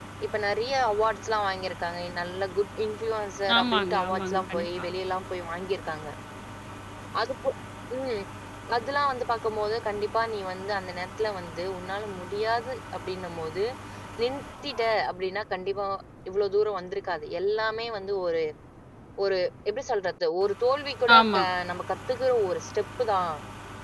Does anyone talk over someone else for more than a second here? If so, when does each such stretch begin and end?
3.6-4.8

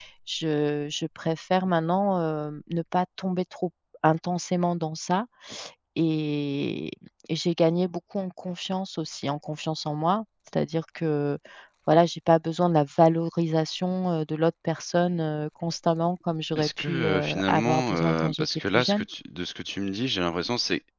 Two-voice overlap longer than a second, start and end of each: 16.6-19.0

